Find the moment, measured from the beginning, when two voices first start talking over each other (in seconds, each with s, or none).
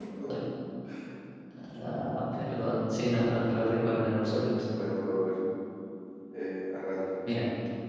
none